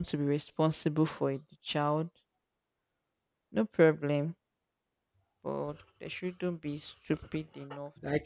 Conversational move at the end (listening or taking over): taking over